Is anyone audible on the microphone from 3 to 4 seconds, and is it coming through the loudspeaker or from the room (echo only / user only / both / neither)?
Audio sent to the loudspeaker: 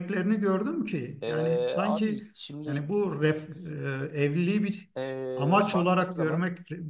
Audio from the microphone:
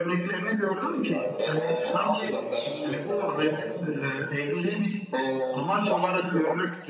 both